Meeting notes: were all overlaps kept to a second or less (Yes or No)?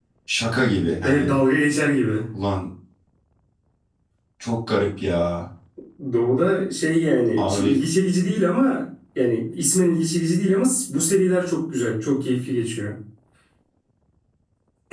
Yes